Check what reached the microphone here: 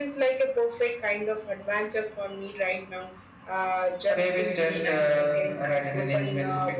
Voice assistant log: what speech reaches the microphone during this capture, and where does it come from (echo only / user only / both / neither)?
both